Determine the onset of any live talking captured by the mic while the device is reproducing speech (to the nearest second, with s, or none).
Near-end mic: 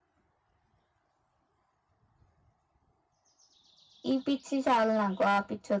4 s